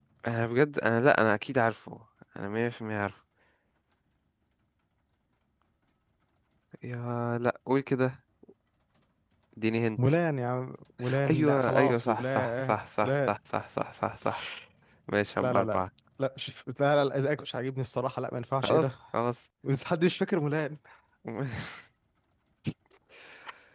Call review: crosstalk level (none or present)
present